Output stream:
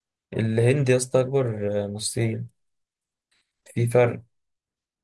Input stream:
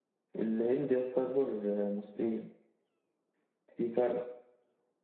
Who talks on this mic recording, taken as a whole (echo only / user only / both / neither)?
echo only